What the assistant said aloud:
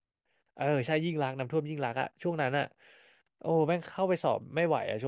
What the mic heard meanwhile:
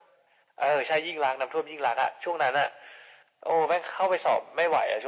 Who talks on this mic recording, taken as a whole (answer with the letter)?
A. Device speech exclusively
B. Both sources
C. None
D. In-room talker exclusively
A